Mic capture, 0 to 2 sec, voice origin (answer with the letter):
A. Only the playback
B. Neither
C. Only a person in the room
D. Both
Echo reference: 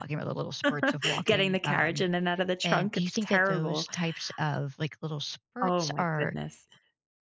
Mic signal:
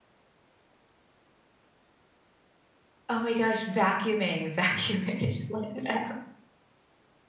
B